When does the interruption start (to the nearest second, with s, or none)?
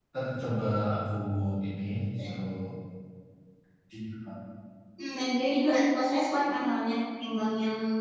none